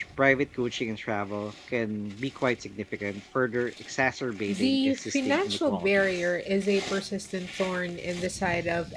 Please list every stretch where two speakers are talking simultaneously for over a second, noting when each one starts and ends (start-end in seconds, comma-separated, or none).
4.5-6.2